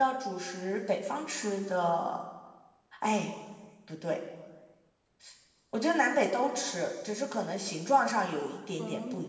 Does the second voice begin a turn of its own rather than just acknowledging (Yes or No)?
Yes